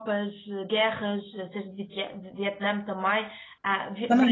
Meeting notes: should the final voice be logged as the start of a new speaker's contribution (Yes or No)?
Yes